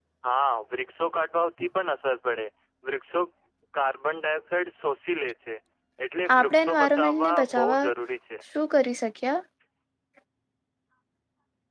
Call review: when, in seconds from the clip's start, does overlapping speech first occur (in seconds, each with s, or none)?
6.4 s